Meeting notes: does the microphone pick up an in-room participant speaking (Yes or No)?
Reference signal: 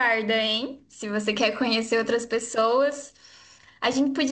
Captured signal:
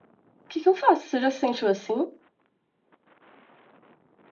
Yes